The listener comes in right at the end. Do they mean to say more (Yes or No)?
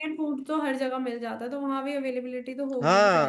Yes